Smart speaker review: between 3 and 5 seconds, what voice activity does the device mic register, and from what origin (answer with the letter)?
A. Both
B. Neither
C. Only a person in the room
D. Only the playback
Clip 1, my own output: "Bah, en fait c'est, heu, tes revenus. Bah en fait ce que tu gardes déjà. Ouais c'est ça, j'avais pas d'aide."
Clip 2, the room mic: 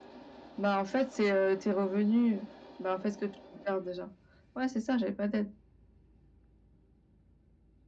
D